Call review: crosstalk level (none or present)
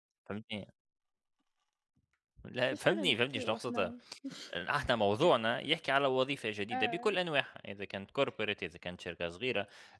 present